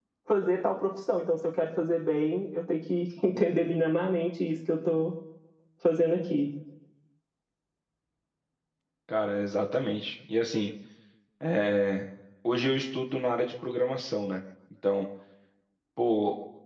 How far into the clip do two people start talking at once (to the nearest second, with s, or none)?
none